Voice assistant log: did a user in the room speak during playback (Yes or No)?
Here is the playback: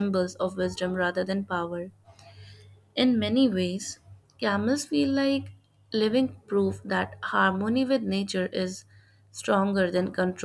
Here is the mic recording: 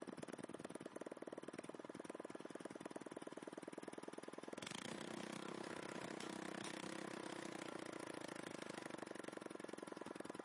No